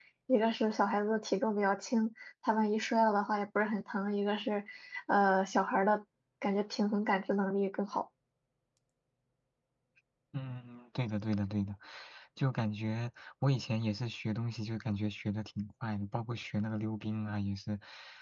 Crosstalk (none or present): none